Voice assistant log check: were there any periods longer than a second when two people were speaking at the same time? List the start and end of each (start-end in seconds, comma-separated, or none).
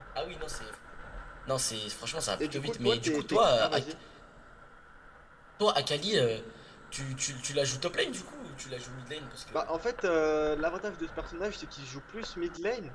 2.4-3.8